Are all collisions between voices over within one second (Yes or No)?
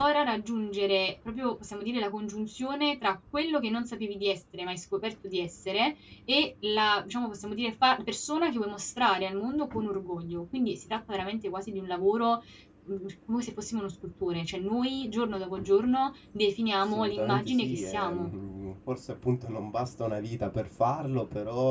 No